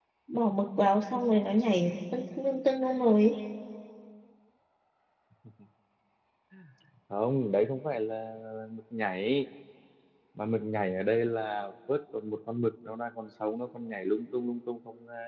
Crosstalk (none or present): none